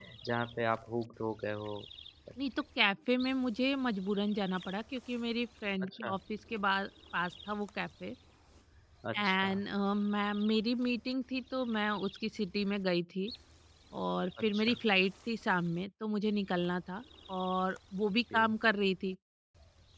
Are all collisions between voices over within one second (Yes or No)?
Yes